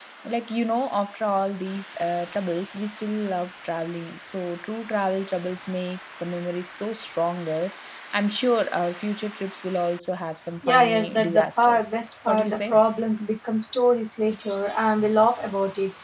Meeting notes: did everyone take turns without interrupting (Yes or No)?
No